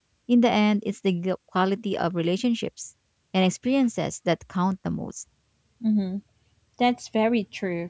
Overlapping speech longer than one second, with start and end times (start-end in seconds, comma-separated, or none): none